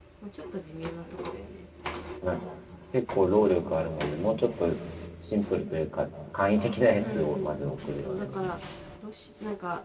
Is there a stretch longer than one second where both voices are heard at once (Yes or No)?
Yes